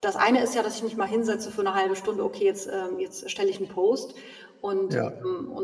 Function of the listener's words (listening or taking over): listening